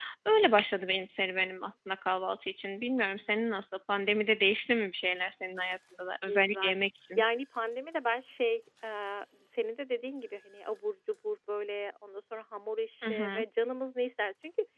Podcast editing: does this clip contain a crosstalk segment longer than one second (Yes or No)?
No